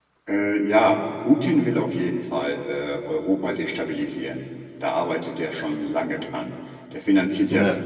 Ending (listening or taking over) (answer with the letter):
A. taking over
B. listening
B